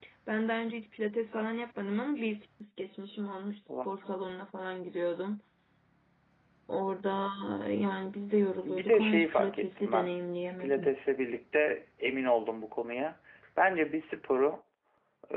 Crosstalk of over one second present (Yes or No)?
Yes